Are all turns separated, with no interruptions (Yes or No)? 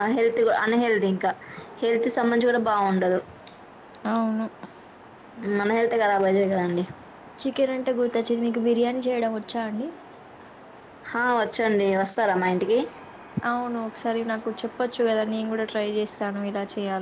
Yes